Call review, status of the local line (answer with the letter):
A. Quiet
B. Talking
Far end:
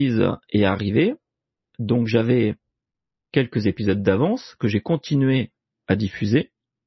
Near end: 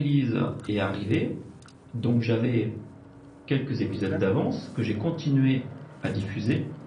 B